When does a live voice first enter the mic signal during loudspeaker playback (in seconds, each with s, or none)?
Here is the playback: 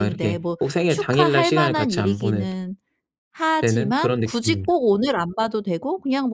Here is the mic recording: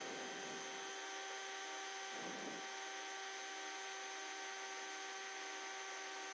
none